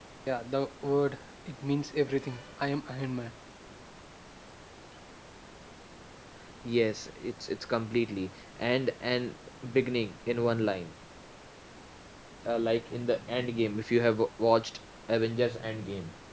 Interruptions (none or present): none